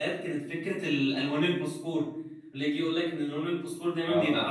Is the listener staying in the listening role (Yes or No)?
Yes